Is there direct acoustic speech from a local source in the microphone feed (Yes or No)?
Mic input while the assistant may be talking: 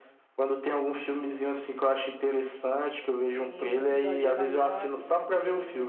Yes